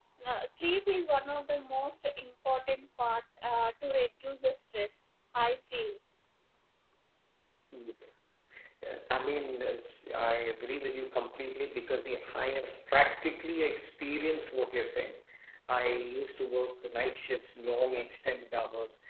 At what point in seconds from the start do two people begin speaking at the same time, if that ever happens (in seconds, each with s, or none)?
none